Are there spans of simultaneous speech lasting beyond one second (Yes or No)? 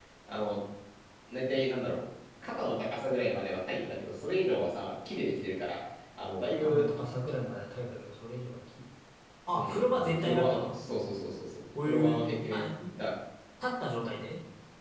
Yes